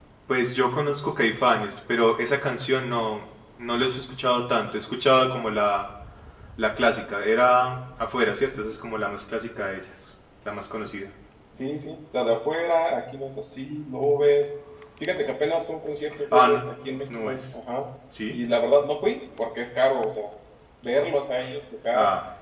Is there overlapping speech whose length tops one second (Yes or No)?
No